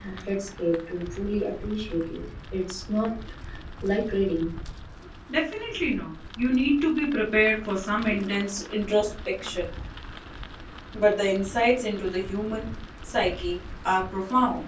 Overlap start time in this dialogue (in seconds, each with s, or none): none